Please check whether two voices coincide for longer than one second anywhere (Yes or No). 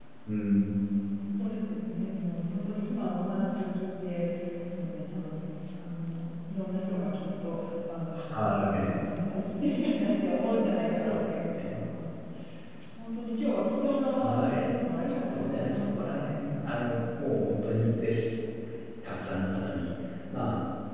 Yes